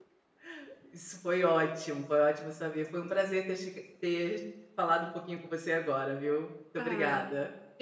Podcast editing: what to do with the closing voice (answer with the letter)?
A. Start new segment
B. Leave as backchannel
A